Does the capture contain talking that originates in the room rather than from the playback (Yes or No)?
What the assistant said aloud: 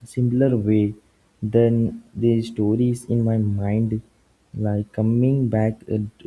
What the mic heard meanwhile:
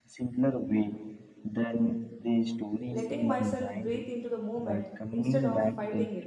Yes